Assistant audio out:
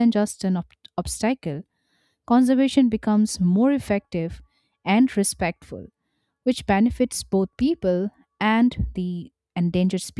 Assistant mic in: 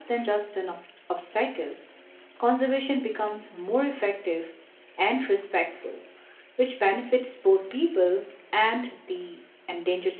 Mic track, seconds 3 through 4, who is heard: echo only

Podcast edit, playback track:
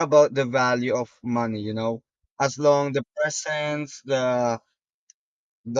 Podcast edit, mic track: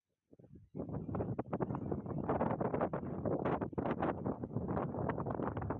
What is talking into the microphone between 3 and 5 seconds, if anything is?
neither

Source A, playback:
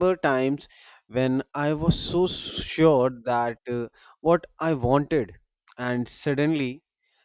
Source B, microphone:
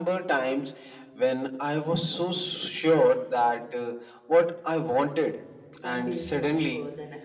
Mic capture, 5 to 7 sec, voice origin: both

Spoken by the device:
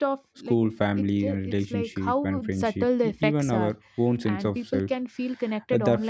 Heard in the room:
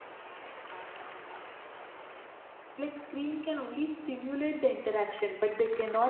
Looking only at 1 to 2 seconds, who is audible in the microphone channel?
neither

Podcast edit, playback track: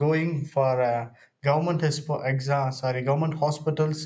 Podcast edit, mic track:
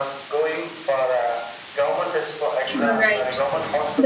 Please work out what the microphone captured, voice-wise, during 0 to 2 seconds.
echo only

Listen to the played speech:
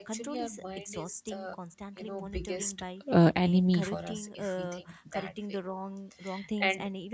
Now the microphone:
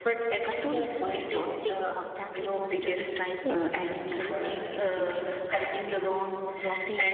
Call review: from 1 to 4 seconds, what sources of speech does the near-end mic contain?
echo only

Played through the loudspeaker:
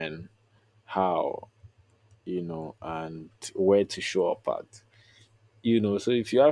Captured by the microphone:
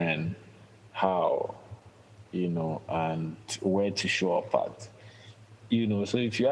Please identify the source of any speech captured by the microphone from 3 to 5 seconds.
echo only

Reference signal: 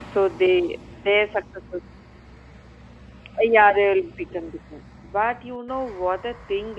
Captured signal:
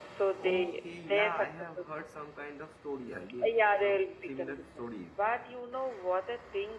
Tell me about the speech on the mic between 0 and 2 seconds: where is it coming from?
both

